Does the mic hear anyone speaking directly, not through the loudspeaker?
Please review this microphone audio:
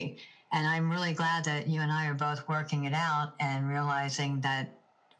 No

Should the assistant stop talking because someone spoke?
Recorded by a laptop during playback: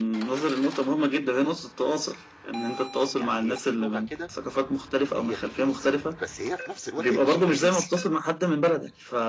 Yes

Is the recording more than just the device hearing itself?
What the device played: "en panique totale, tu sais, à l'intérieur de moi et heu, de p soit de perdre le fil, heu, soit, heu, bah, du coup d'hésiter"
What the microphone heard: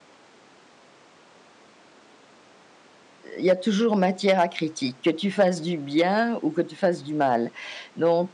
Yes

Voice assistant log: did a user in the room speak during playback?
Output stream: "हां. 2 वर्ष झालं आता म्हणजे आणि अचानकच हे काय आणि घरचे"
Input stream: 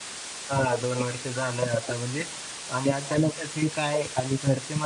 No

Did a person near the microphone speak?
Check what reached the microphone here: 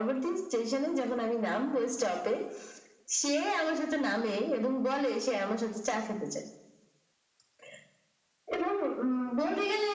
No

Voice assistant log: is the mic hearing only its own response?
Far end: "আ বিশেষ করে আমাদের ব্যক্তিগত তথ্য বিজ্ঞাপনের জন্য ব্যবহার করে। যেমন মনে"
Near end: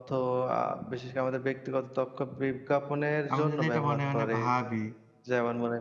No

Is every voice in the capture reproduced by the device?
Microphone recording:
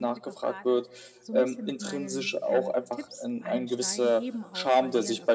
No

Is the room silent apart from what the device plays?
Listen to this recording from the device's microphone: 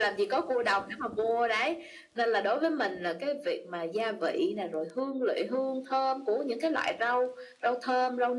Yes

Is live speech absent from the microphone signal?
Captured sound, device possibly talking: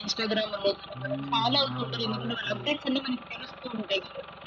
No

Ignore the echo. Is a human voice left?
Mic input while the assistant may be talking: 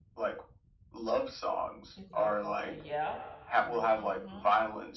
Yes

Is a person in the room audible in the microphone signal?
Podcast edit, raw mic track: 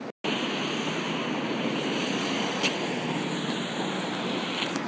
No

